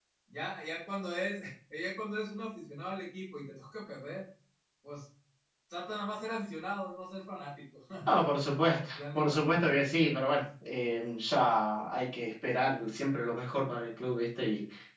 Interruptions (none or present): present